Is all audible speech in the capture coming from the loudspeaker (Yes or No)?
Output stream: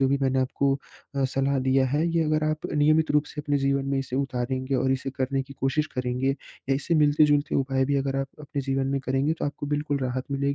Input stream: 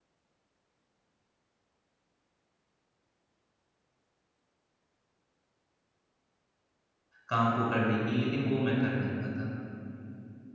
No